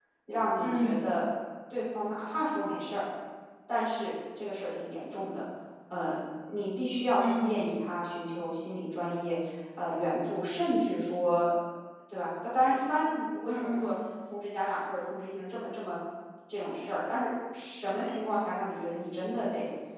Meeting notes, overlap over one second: none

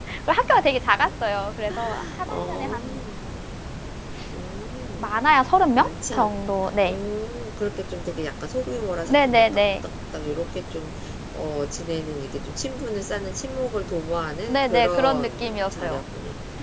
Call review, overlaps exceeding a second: present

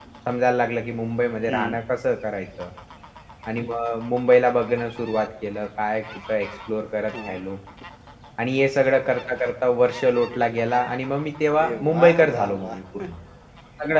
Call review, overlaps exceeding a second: present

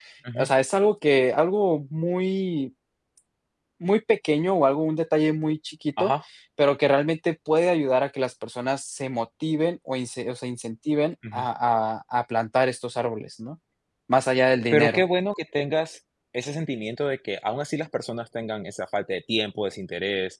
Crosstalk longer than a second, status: none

